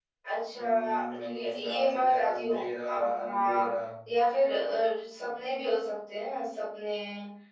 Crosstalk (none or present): present